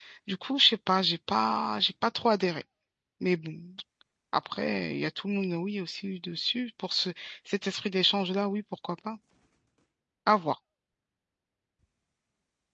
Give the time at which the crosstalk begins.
none

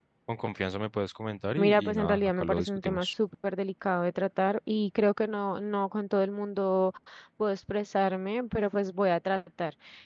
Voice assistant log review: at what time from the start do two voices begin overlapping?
1.6 s

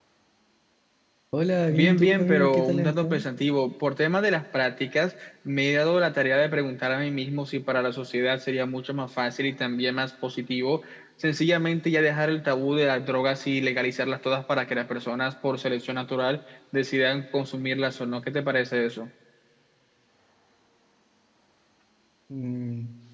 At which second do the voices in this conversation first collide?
1.7 s

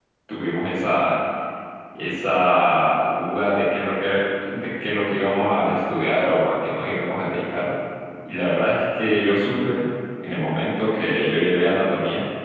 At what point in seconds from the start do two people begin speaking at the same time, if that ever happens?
none

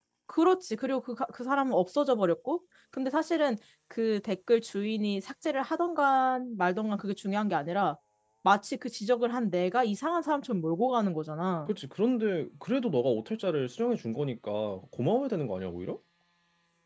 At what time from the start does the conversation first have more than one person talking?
none

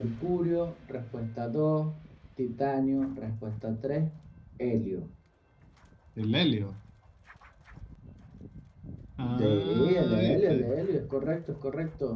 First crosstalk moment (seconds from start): 9.2 s

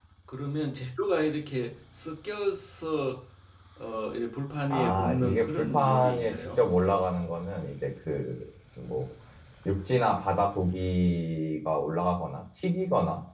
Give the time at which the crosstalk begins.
4.7 s

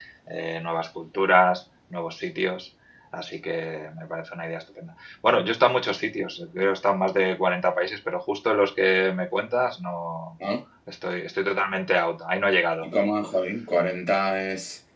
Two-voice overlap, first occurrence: none

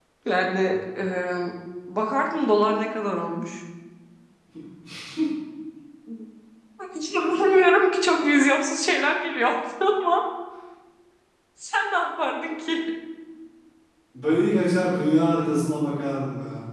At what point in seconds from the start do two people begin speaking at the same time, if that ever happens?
none

